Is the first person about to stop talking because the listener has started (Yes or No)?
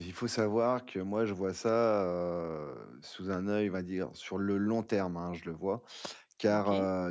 No